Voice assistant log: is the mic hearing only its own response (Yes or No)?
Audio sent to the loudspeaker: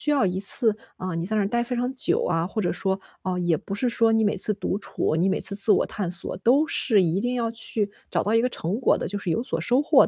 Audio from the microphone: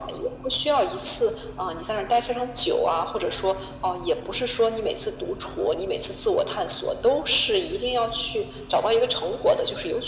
Yes